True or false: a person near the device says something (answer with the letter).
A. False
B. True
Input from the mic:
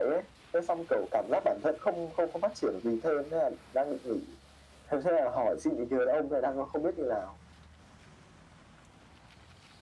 A